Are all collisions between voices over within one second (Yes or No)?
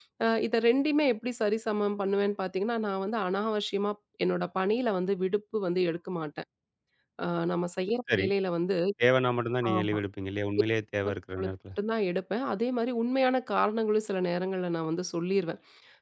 Yes